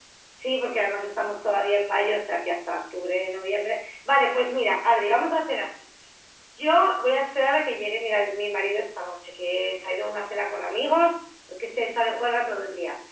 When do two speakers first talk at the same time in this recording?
none

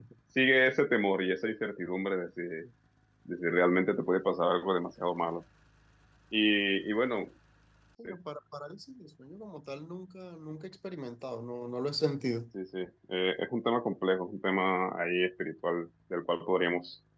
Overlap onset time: none

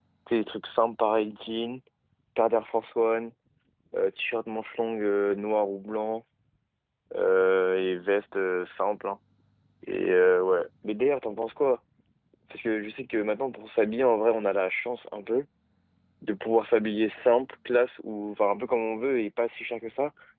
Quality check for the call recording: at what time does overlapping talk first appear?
none

